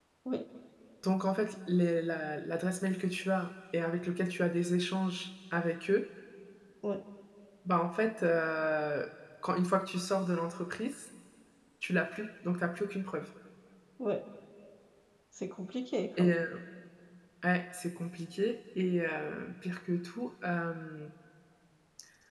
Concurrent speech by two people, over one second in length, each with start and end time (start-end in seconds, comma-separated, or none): none